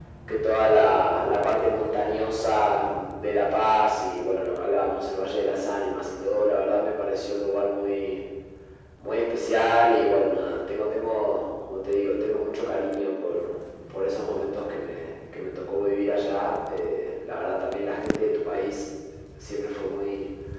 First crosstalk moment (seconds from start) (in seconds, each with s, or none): none